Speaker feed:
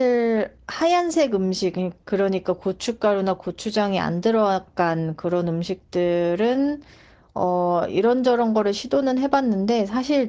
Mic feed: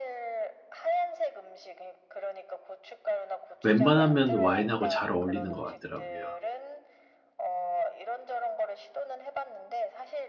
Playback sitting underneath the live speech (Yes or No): Yes